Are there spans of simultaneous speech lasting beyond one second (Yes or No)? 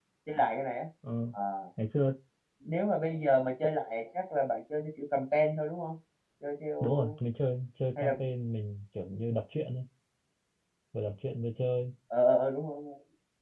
No